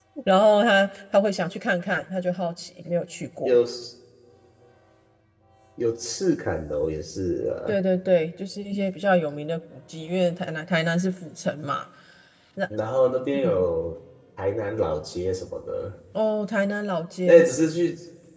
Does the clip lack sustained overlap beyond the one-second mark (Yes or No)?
Yes